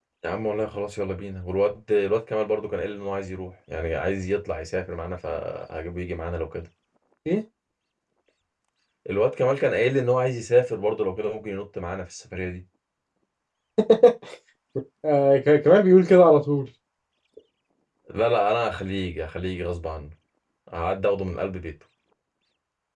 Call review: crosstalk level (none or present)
none